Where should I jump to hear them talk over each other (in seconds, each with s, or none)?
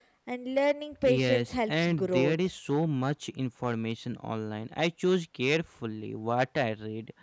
1.0 s